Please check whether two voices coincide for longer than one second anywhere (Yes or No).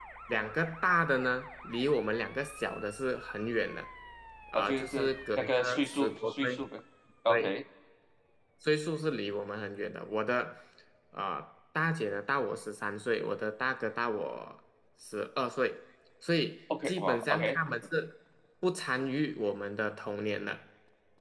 Yes